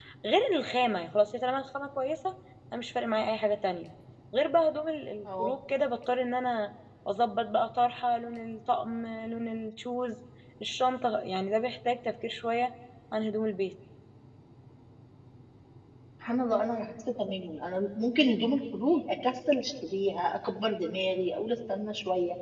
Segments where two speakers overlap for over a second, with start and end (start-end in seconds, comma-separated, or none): none